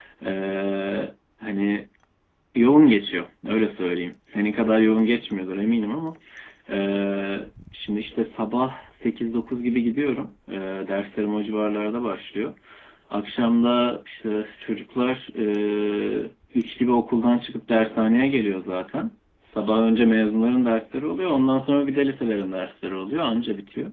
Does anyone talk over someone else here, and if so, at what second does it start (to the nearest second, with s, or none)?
none